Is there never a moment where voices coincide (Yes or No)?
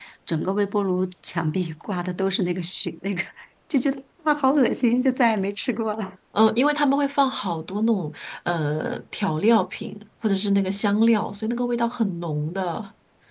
Yes